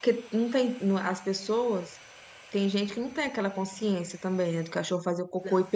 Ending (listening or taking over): listening